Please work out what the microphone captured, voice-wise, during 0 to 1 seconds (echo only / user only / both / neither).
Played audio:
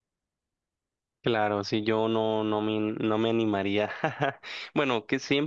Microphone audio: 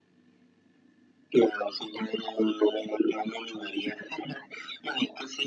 neither